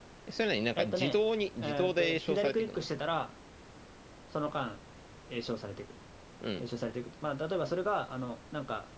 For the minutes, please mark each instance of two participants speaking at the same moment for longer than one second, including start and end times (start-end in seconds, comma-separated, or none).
1.6-2.8